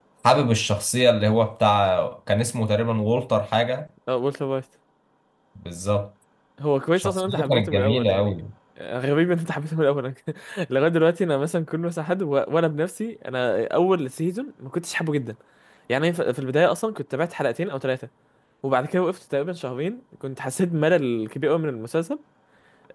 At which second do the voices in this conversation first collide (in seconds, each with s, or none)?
7.0 s